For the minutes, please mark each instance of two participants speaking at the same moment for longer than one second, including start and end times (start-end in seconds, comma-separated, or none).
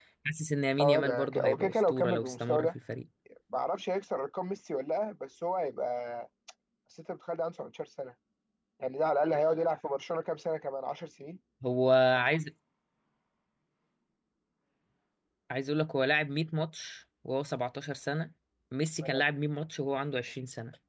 0.8-2.7